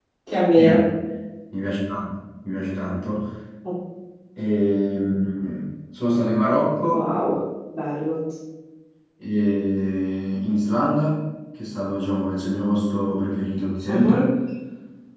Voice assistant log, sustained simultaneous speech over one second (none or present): none